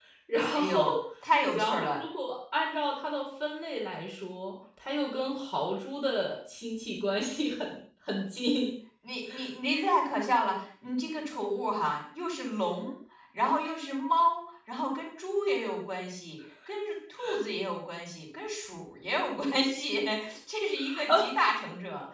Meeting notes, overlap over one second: none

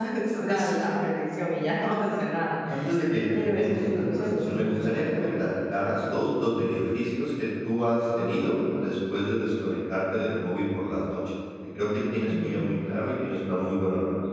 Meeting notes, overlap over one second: present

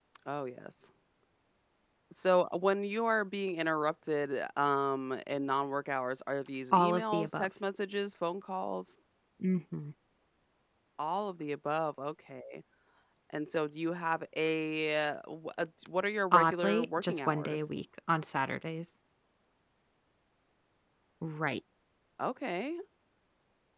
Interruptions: present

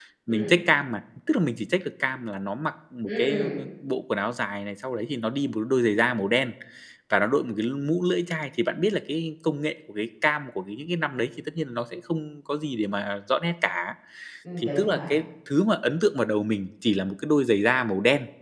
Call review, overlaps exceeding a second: none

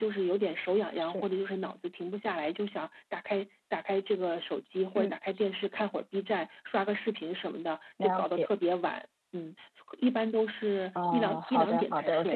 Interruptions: present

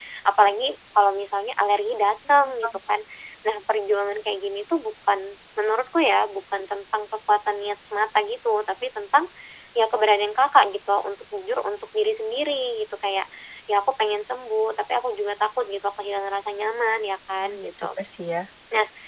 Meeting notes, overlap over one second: none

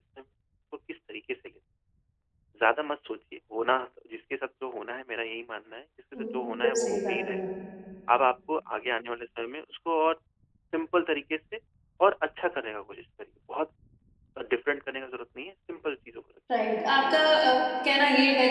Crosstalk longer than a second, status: present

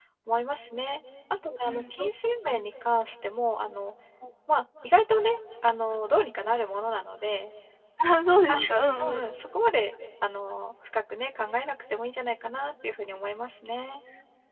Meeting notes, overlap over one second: none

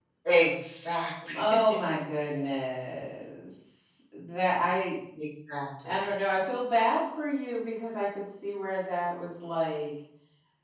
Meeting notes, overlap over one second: none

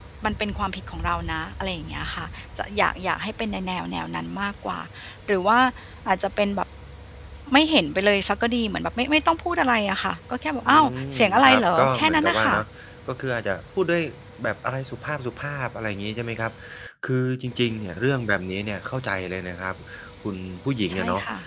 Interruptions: present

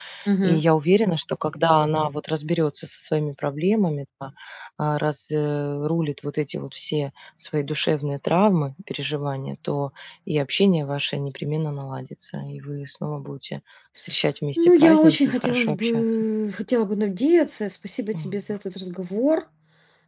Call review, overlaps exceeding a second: present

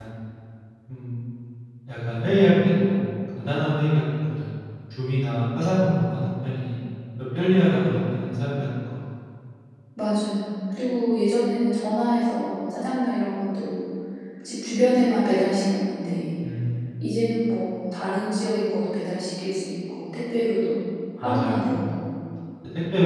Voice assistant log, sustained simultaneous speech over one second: none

